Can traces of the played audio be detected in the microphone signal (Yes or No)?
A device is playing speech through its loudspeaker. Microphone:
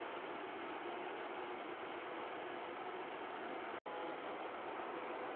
No